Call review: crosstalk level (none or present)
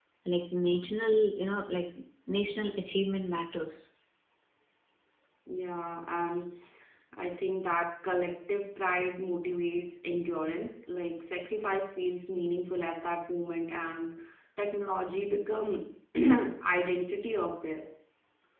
none